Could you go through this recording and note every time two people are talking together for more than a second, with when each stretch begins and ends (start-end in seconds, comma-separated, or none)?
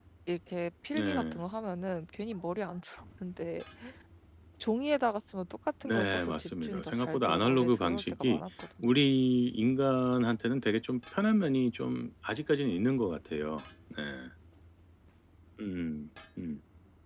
5.8-8.4